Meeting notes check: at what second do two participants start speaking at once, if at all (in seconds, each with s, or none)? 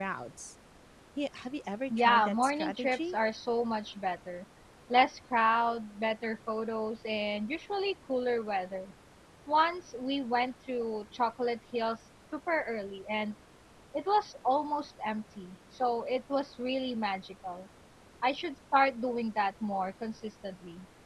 1.9 s